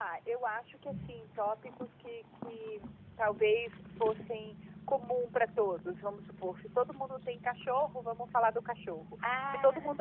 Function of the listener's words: listening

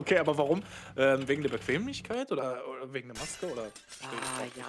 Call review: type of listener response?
taking over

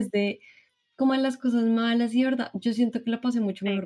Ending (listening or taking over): listening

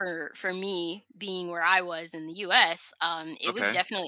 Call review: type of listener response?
listening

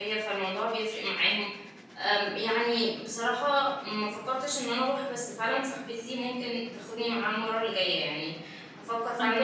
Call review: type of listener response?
taking over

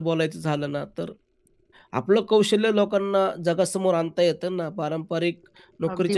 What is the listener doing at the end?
listening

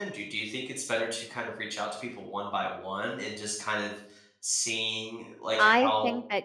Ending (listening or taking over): taking over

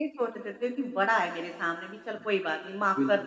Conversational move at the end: taking over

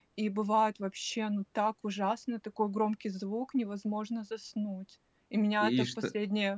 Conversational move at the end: listening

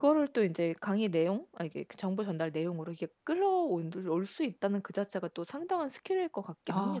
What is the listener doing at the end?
taking over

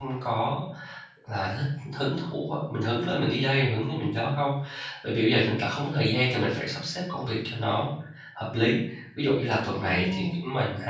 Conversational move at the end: listening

